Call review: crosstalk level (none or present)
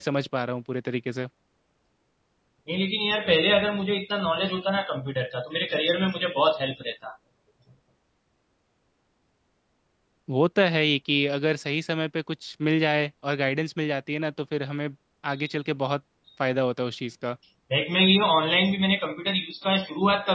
none